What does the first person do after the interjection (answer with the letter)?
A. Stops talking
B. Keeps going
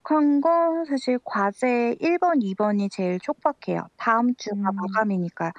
B